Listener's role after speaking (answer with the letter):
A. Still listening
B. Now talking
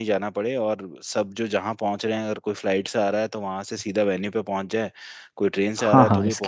B